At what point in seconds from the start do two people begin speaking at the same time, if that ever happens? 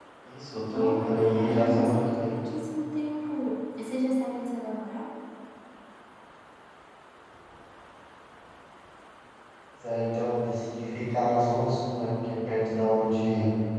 0.7 s

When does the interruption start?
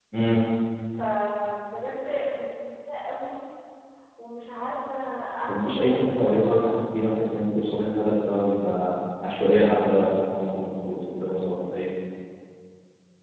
5.5 s

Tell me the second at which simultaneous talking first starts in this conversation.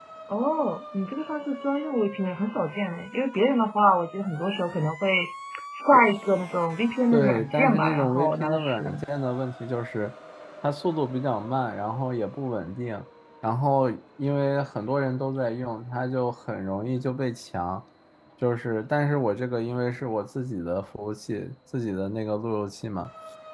7.1 s

